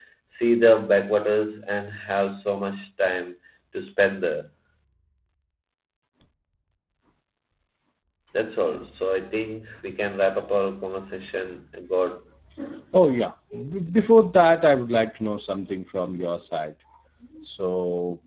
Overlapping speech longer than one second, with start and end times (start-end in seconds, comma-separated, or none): none